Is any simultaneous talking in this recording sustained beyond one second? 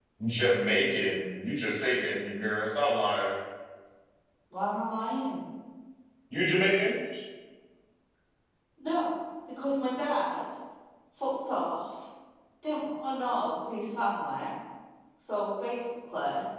No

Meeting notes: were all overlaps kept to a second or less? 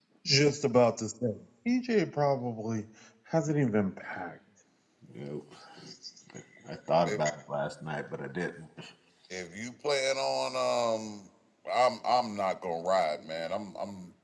Yes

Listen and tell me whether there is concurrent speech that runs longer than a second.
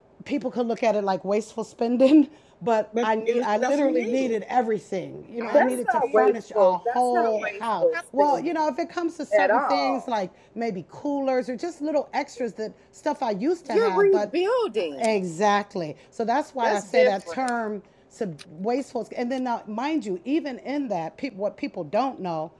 Yes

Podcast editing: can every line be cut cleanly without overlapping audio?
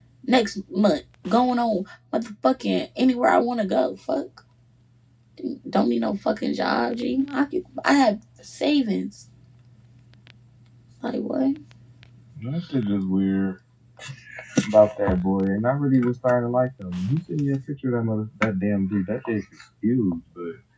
Yes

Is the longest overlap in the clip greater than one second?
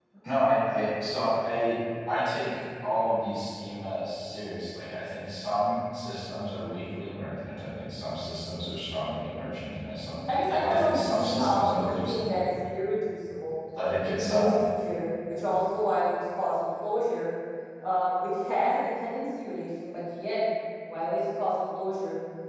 Yes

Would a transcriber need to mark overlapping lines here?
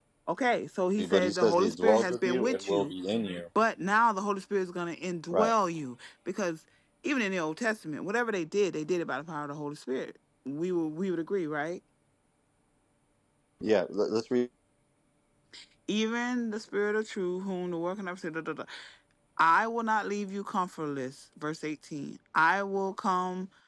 Yes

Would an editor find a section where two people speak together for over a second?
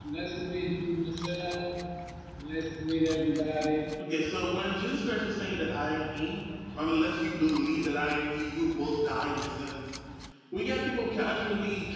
No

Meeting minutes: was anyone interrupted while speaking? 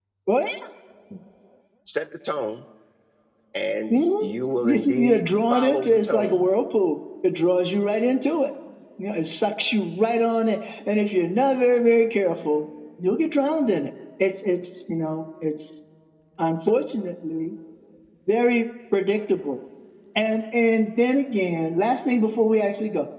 Yes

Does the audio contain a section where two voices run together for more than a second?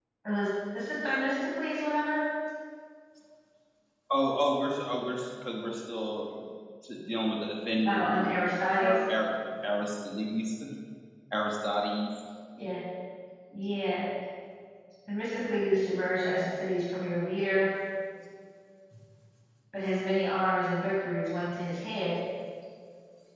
No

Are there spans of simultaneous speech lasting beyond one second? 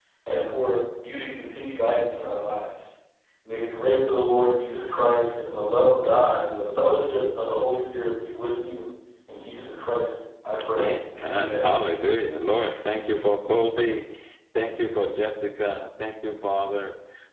No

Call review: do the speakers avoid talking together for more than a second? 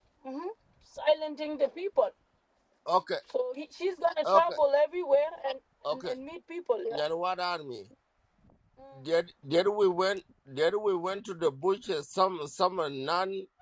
Yes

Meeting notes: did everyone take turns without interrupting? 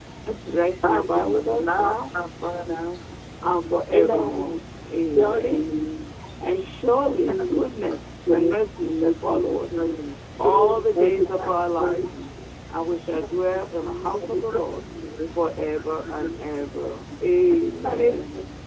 No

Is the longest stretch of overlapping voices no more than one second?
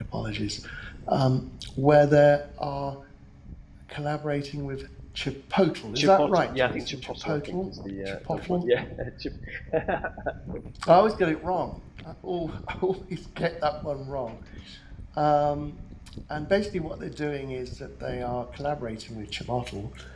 No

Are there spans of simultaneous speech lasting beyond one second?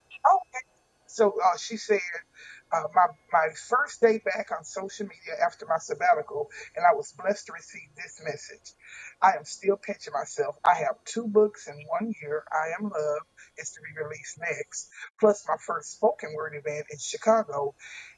No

